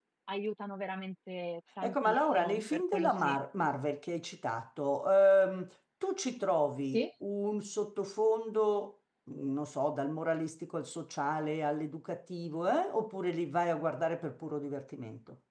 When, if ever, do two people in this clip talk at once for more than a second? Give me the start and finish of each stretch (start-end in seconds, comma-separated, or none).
1.8-3.4